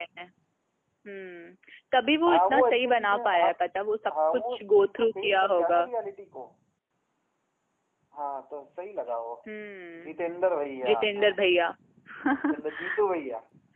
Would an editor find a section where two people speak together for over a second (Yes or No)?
Yes